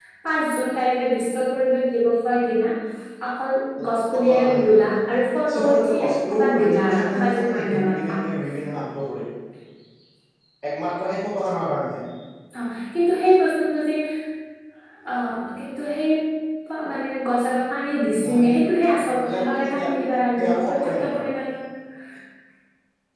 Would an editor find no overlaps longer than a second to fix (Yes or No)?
No